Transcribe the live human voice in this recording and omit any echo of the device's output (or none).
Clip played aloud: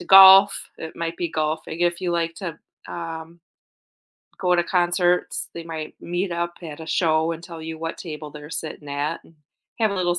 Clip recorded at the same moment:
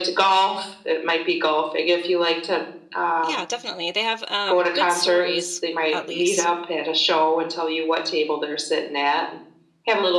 Yeah, definitely. They have um good stories at least.